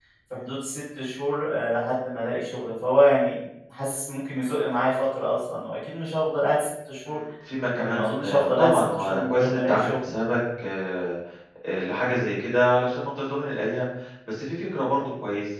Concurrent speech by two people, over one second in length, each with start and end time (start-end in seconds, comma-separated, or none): 7.8-10.0